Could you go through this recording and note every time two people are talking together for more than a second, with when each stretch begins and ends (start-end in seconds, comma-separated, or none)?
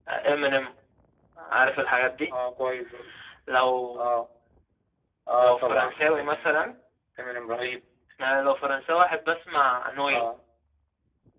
5.4-6.6